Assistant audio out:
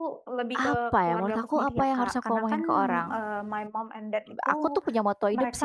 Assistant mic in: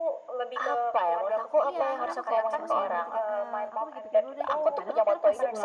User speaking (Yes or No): Yes